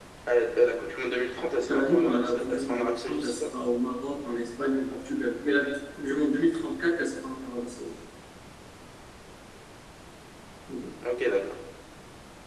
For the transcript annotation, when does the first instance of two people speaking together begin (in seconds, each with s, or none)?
1.7 s